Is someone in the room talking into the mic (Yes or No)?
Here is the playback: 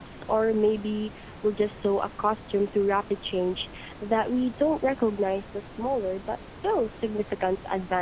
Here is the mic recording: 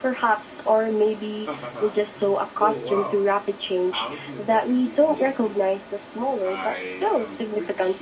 Yes